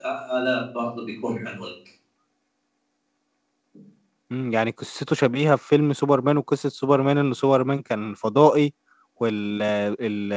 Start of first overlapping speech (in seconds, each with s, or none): none